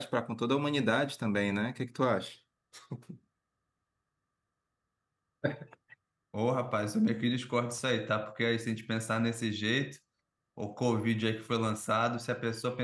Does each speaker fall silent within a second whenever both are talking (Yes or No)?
Yes